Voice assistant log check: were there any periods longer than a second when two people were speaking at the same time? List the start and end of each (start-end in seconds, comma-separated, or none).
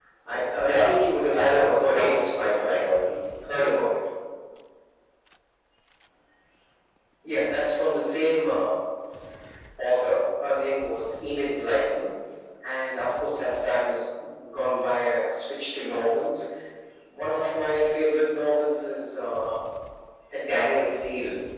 1.3-2.9